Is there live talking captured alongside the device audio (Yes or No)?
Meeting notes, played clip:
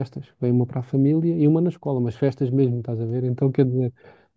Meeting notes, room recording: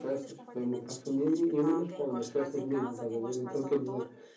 Yes